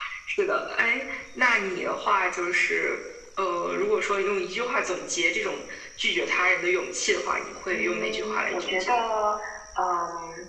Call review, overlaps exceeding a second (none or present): present